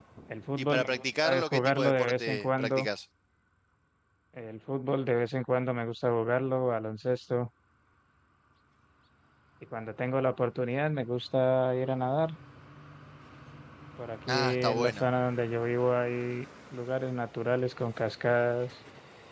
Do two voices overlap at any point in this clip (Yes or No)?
Yes